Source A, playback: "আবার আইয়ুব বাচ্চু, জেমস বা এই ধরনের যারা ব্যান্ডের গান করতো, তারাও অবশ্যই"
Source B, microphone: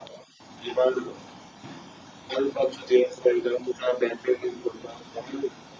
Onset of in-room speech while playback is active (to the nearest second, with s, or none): none